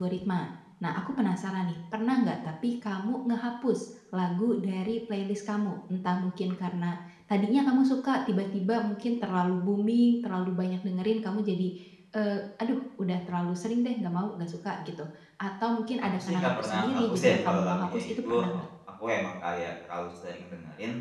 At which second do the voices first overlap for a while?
16.1 s

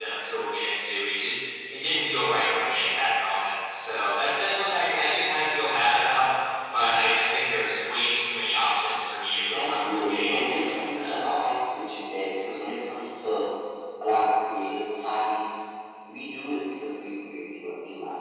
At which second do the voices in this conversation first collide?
9.5 s

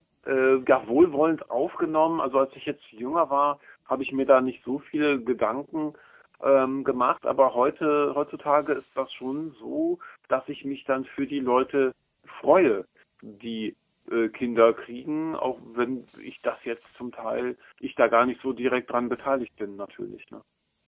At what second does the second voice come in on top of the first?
none

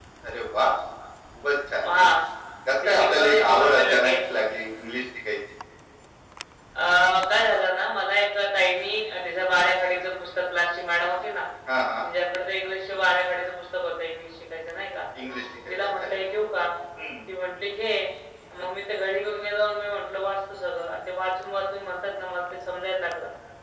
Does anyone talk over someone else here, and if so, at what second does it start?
2.8 s

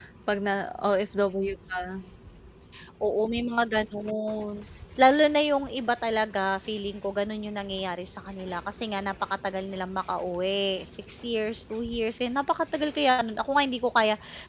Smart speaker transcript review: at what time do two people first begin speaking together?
none

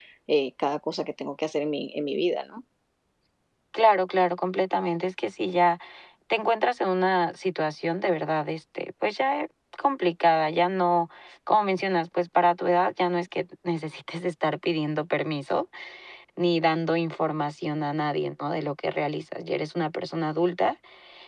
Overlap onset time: none

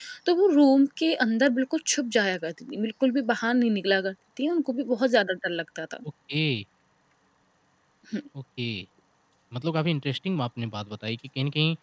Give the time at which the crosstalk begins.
none

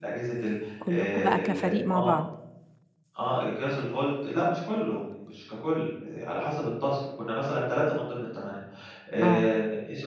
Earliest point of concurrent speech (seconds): 0.9 s

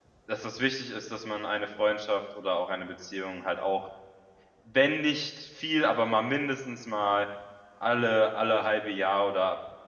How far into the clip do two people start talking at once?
none

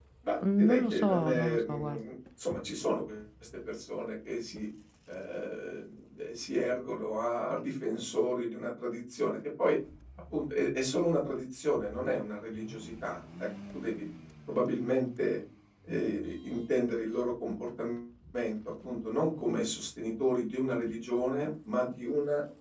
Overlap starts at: 0.6 s

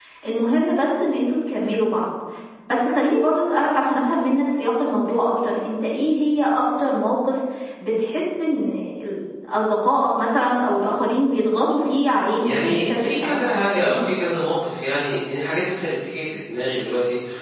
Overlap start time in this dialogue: 12.4 s

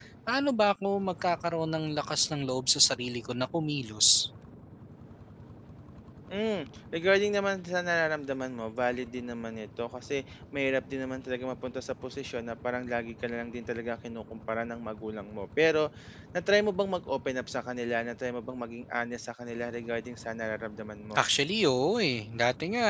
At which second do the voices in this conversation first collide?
none

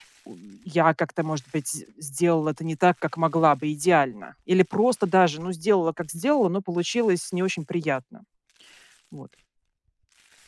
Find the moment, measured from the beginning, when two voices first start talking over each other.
none

